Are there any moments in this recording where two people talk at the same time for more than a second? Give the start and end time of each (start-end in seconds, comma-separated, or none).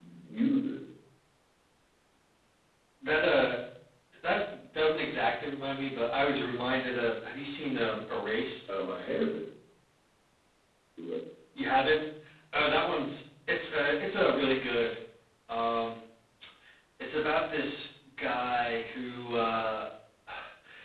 none